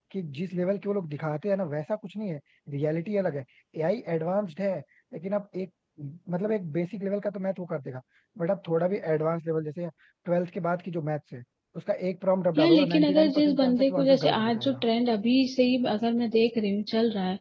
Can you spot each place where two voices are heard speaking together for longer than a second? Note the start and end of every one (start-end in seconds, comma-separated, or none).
12.6-14.8